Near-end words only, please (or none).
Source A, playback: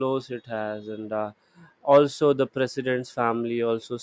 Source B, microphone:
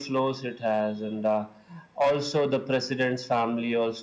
none